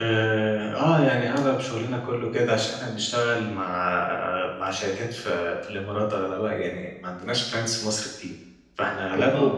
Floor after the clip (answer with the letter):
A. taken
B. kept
B